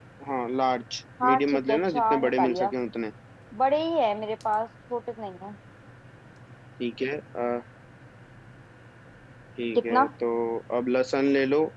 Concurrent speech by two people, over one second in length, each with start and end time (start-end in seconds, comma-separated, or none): 1.2-2.7